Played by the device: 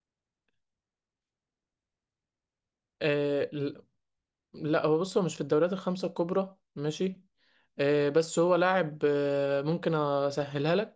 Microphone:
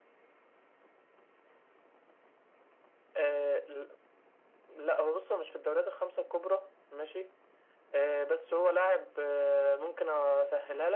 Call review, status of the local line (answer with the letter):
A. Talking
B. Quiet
B